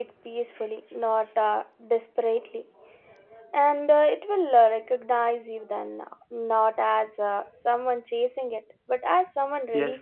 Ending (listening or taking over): taking over